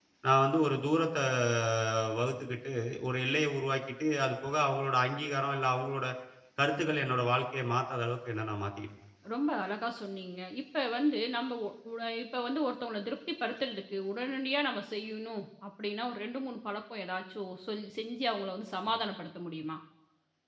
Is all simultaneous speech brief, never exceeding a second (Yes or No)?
Yes